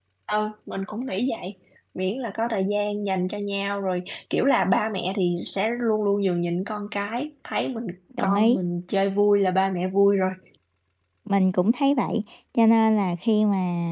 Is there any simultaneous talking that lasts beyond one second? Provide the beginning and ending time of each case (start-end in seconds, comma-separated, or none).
none